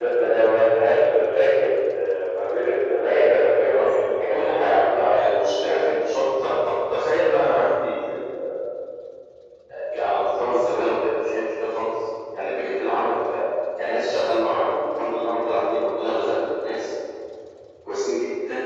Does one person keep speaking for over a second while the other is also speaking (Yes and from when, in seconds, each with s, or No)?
Yes, from 3.7 s